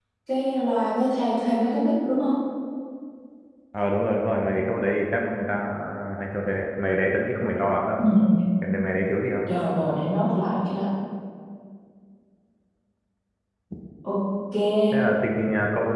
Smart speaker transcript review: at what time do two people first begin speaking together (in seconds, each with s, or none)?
none